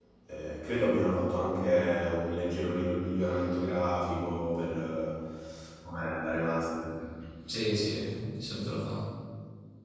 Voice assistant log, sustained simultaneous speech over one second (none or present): none